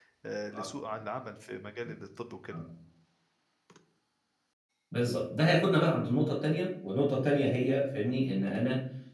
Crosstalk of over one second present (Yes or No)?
No